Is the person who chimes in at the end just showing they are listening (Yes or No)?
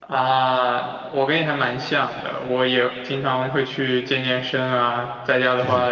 Yes